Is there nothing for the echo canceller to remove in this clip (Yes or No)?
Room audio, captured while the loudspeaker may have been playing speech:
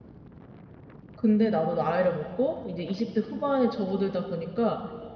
Yes